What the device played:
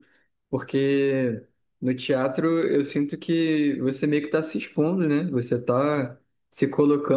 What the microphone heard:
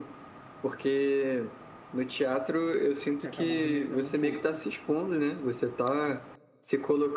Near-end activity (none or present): present